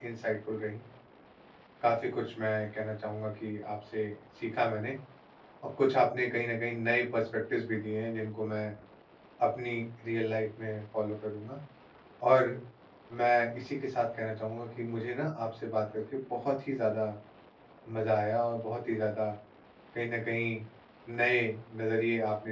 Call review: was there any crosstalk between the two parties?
No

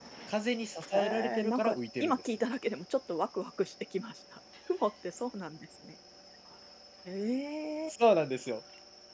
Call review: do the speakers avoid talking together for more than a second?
No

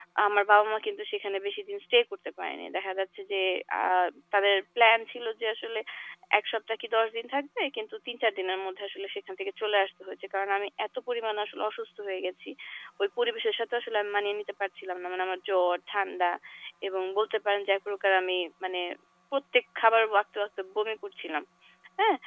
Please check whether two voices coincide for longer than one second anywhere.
No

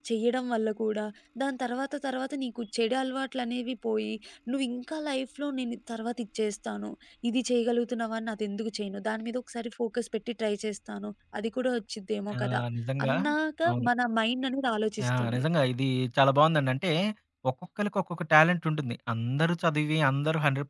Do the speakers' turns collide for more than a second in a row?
No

